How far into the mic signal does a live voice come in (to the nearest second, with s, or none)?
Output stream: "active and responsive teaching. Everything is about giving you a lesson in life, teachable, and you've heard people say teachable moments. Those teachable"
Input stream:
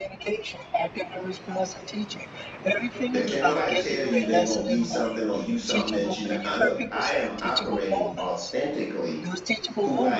3 s